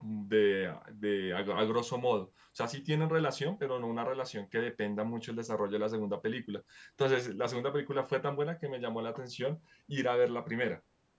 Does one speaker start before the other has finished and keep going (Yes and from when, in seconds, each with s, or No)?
No